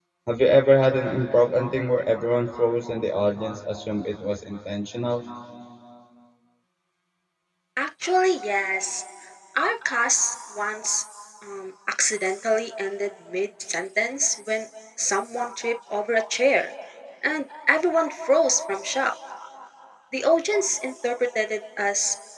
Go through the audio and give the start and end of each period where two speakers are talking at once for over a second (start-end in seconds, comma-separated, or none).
none